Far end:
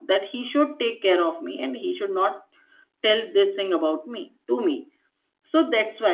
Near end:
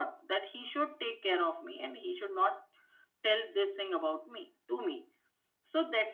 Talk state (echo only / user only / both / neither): echo only